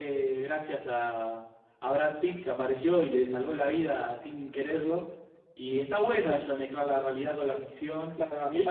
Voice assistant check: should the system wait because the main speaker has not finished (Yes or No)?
No